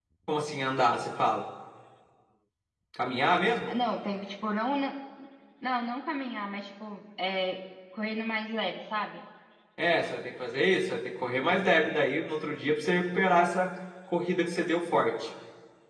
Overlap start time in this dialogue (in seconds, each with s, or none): none